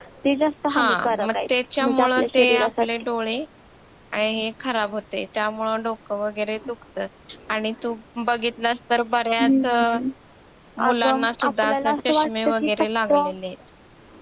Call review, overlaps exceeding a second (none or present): present